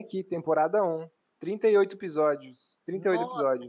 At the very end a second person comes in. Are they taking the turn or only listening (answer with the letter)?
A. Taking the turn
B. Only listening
A